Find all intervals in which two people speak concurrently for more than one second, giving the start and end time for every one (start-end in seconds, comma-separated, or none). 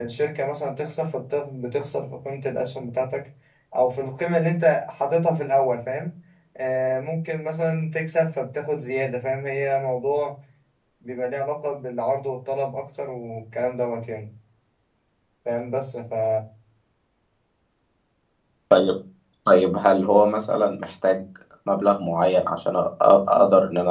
none